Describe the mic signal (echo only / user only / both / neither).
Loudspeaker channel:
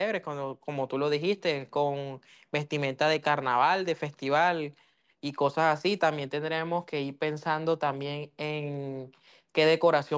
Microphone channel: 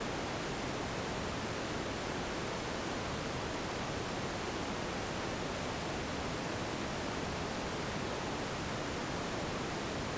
neither